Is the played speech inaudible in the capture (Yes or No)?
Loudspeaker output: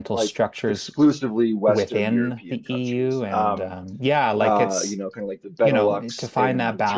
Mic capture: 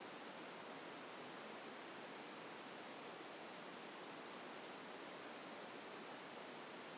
Yes